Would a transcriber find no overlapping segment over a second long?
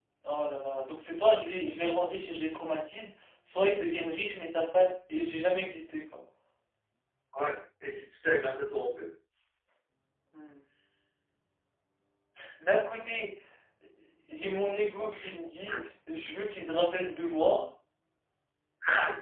Yes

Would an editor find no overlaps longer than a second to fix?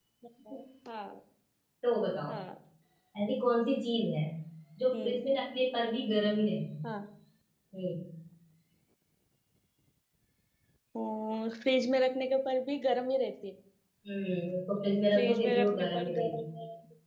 No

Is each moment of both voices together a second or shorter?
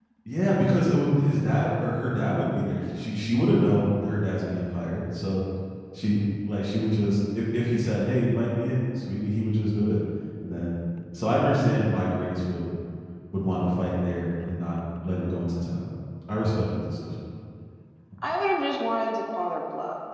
Yes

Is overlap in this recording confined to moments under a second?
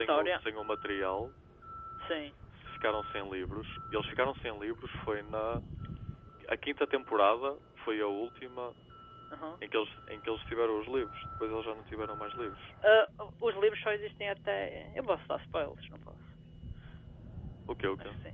Yes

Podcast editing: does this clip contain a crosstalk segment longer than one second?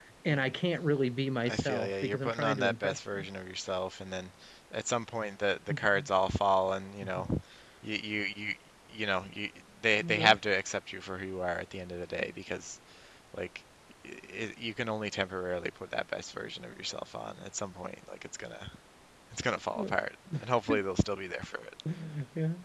Yes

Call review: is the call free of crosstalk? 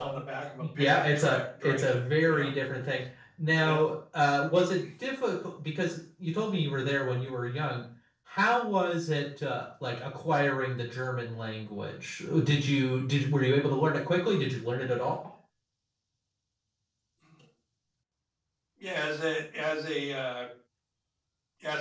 No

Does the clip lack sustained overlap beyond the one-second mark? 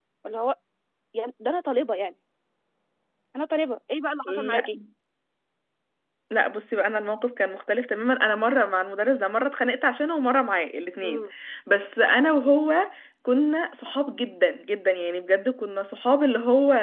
Yes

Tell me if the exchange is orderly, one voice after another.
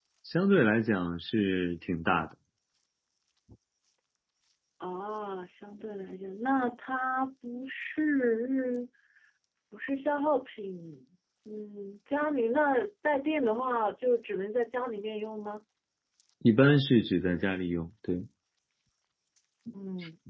Yes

